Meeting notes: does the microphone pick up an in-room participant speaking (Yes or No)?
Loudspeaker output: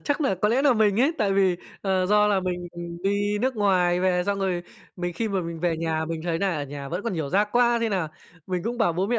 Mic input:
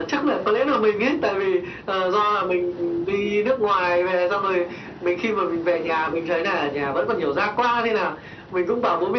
No